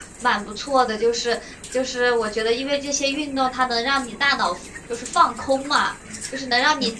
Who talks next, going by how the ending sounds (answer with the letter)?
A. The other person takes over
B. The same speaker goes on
B